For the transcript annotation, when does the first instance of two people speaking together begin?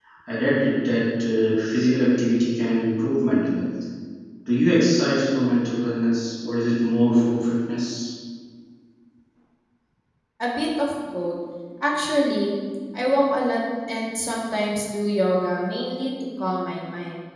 none

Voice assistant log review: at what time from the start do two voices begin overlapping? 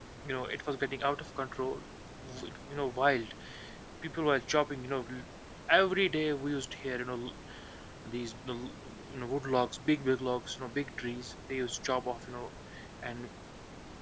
none

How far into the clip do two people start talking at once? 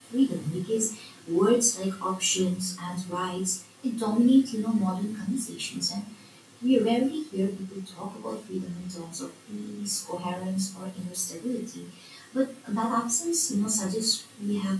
none

